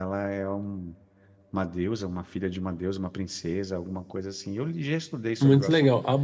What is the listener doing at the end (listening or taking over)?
taking over